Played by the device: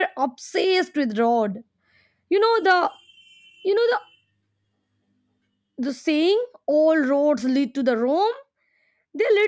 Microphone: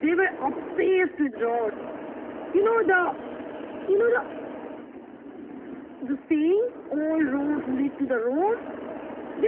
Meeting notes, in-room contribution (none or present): none